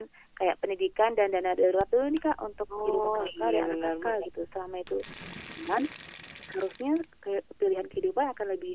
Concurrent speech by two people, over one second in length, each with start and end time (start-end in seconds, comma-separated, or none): 2.8-4.3